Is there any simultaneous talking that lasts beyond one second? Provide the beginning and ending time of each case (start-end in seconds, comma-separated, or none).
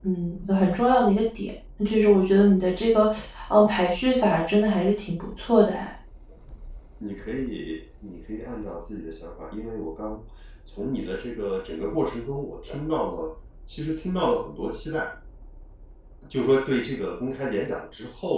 none